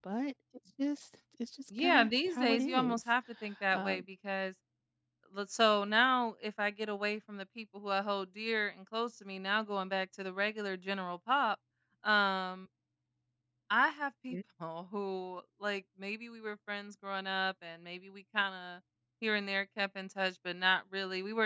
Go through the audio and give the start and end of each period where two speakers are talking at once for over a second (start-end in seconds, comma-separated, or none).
1.8-3.0